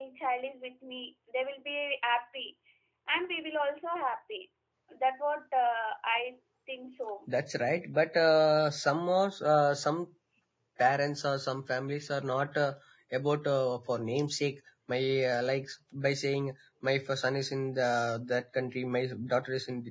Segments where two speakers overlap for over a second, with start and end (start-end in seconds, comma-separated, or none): none